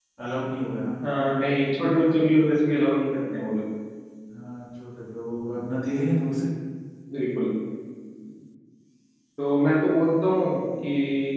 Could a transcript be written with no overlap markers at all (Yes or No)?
Yes